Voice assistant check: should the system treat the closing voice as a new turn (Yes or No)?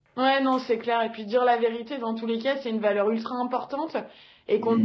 No